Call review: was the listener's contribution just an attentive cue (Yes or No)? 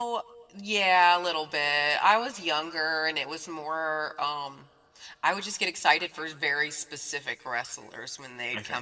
Yes